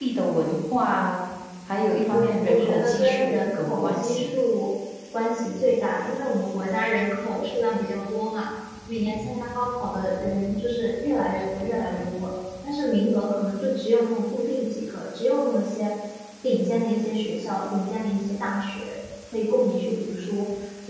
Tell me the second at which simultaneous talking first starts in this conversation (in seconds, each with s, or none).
2.1 s